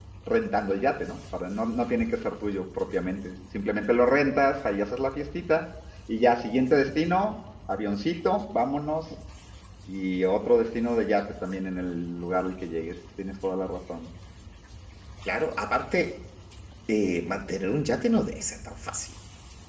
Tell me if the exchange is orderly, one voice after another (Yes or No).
Yes